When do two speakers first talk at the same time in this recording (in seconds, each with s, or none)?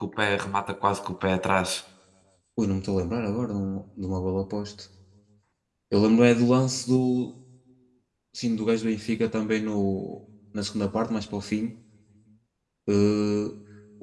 none